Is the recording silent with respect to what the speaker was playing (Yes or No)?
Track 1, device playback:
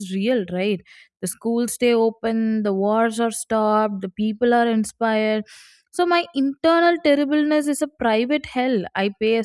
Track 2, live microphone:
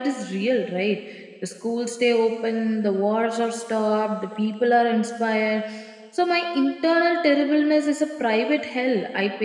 No